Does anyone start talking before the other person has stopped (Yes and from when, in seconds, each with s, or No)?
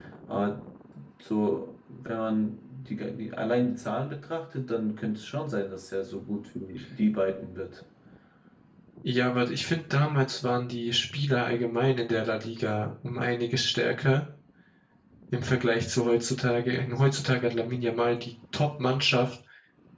No